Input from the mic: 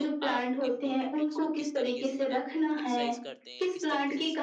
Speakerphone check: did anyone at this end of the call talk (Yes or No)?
Yes